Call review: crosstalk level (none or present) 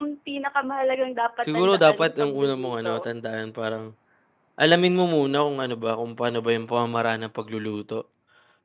present